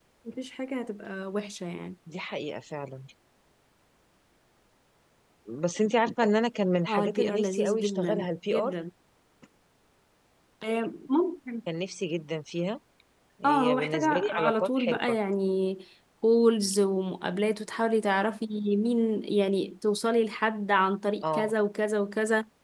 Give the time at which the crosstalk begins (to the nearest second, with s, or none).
7 s